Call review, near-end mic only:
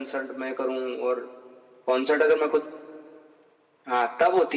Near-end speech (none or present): none